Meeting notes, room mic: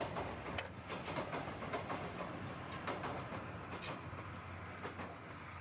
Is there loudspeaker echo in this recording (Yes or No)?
No